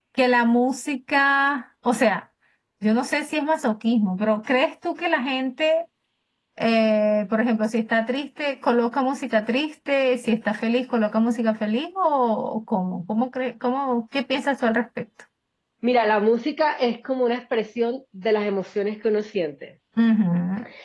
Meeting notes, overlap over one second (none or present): none